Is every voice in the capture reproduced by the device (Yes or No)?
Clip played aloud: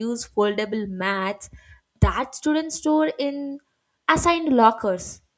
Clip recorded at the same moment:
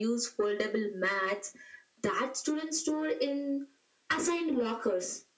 Yes